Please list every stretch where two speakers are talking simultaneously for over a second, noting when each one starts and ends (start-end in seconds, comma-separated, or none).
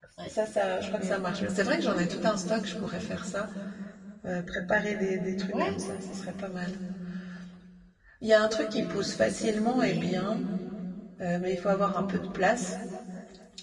none